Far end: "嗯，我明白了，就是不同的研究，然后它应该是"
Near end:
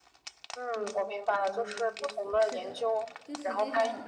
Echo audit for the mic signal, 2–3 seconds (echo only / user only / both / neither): both